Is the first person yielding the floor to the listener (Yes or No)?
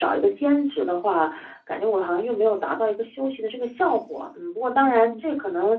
No